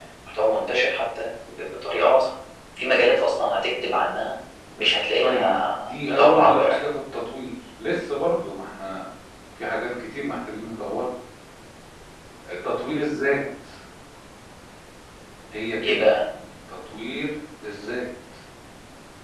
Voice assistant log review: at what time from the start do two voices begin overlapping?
5.2 s

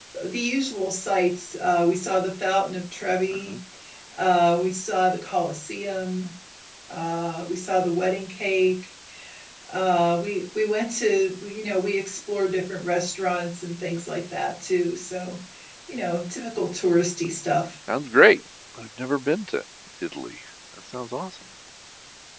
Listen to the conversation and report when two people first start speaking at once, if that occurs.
none

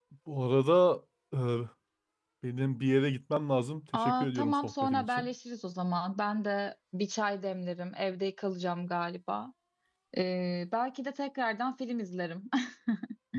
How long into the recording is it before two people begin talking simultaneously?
3.9 s

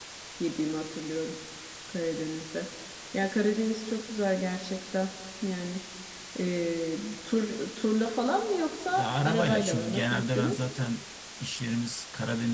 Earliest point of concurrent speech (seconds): 8.9 s

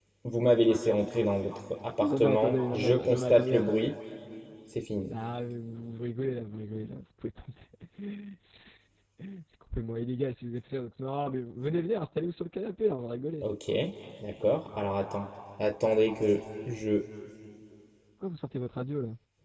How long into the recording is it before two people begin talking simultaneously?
2.0 s

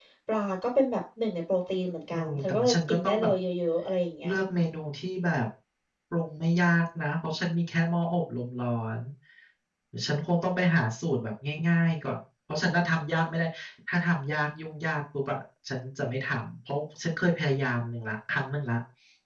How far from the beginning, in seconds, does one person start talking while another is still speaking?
2.1 s

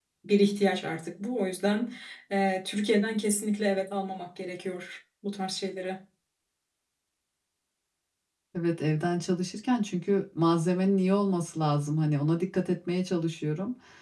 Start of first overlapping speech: none

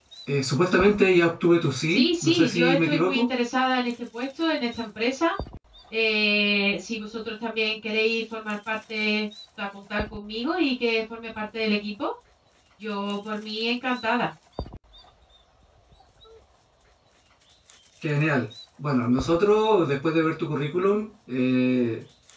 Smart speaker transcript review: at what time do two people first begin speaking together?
1.9 s

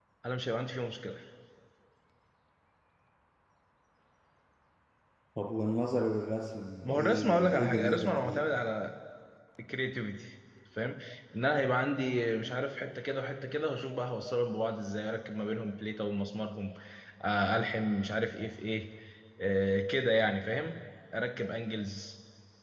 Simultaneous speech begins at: 6.8 s

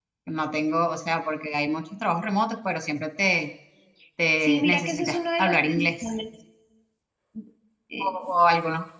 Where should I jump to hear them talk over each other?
4.4 s

